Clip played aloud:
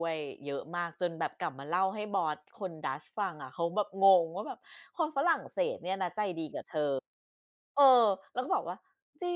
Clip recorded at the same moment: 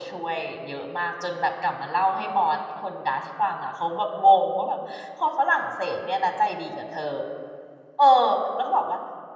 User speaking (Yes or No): No